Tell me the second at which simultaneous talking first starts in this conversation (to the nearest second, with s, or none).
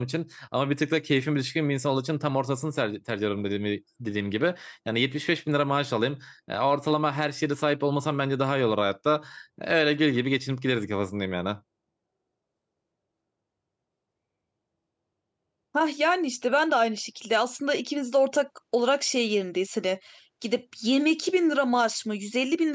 none